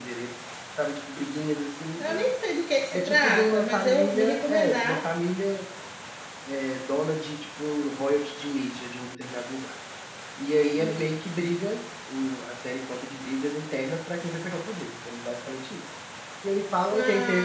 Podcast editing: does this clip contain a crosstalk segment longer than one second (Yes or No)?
Yes